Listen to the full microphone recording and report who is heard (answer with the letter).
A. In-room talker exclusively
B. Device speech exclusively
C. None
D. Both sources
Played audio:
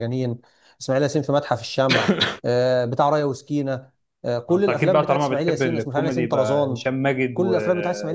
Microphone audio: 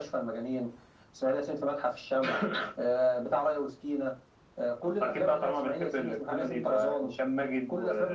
B